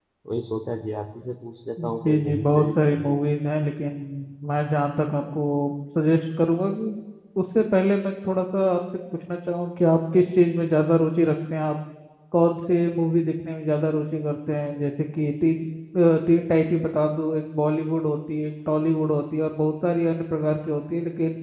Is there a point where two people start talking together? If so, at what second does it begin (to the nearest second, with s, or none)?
2 s